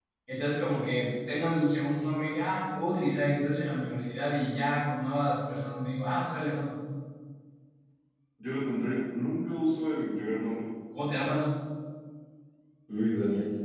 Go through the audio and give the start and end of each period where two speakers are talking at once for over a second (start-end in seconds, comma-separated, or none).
none